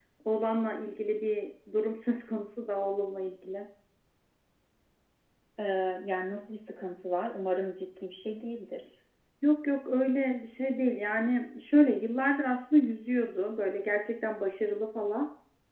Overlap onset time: none

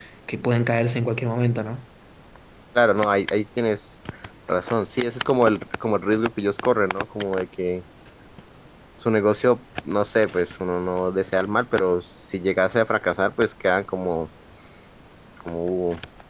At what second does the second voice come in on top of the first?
none

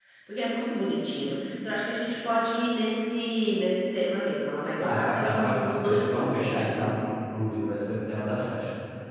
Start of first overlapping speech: 4.8 s

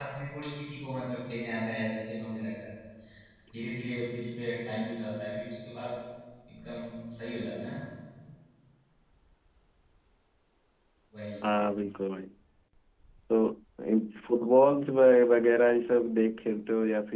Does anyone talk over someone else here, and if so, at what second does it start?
none

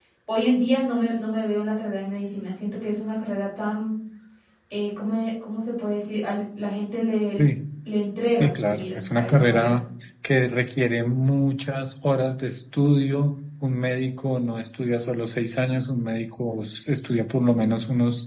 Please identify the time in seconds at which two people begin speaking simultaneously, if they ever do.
8.3 s

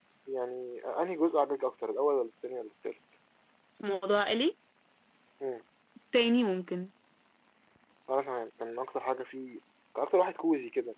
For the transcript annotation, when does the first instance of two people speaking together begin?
none

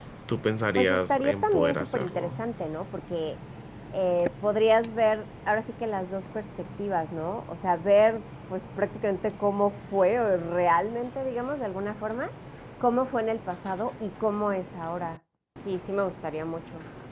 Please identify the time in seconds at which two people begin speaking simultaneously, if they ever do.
0.8 s

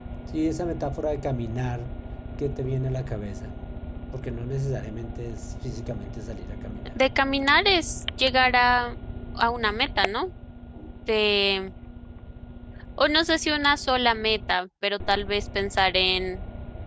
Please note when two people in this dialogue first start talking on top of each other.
none

